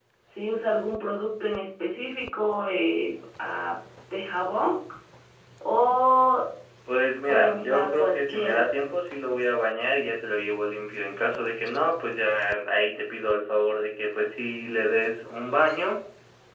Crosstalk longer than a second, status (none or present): present